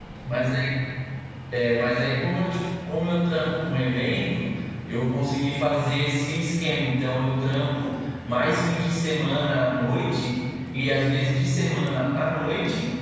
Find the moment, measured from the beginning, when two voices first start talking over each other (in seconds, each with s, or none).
none